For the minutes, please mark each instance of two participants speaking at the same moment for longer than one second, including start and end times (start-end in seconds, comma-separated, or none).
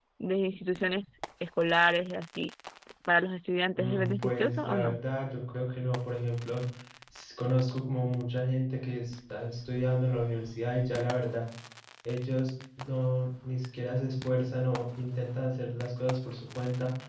3.8-5.0